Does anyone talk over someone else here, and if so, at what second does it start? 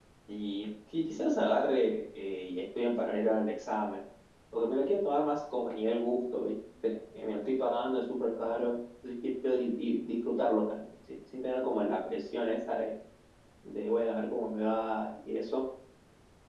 none

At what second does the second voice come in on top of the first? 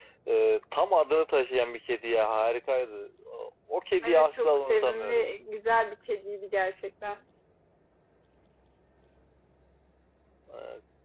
4.0 s

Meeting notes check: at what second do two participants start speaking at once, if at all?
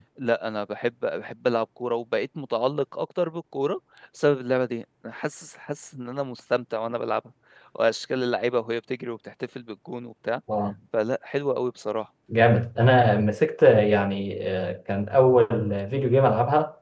none

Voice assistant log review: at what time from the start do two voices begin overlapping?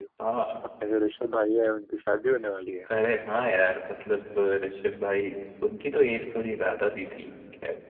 none

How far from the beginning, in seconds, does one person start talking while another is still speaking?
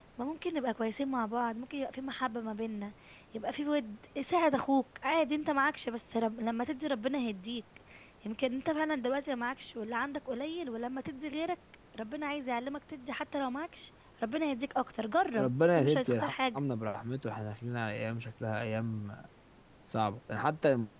15.4 s

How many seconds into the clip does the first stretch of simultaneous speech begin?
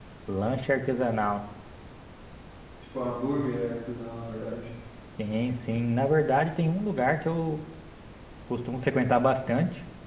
none

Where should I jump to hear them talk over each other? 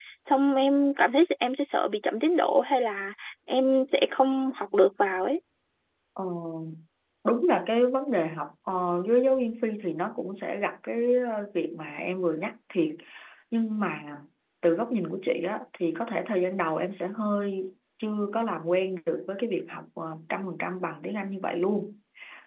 none

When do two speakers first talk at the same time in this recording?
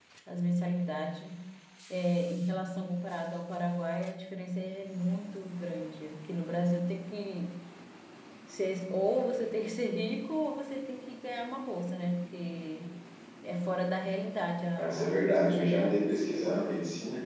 14.8 s

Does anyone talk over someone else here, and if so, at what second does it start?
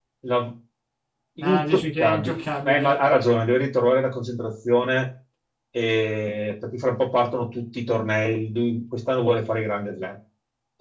1.4 s

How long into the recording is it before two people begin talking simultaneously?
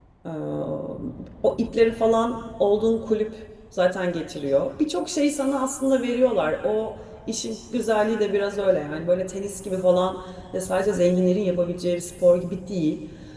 none

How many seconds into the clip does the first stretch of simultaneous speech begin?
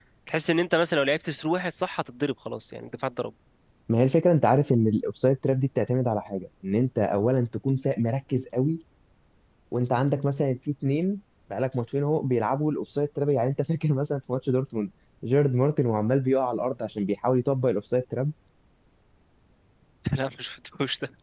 none

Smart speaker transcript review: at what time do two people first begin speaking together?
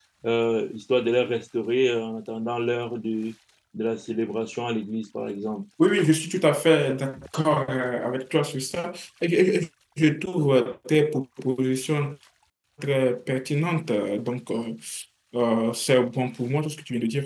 none

